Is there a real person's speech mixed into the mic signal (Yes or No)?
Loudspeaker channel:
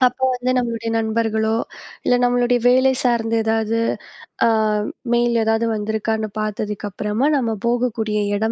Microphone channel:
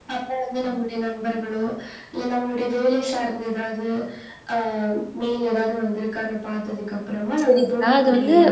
Yes